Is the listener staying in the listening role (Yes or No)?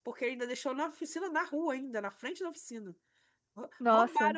Yes